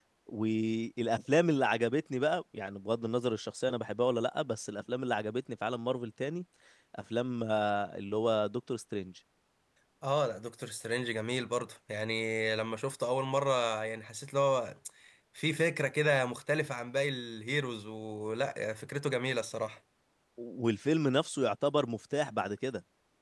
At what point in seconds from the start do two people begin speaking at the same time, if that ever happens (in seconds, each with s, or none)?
none